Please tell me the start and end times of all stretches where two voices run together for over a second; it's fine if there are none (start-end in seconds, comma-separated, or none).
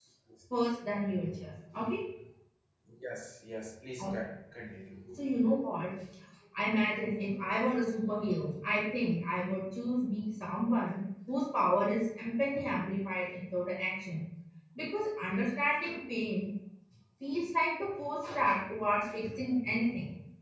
none